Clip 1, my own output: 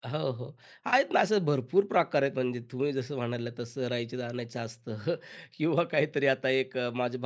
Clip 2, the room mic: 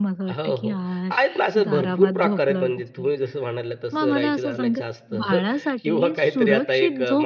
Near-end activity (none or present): present